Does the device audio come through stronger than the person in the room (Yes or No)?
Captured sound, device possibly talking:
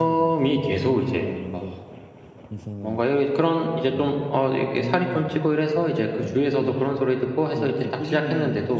No